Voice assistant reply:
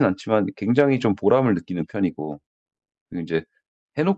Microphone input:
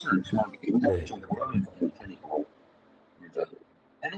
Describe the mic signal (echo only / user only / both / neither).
both